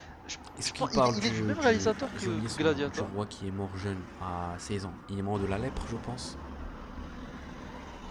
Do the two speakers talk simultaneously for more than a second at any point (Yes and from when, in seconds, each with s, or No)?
Yes, from 0.6 s